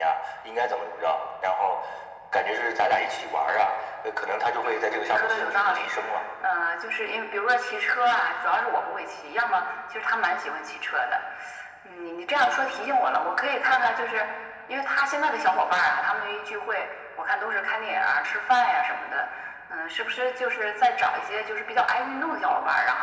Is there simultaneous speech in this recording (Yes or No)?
Yes